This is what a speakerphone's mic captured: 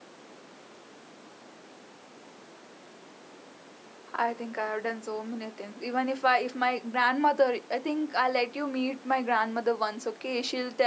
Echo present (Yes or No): No